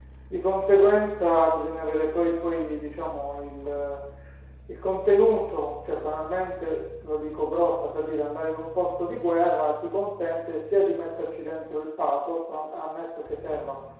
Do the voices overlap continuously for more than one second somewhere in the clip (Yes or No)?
No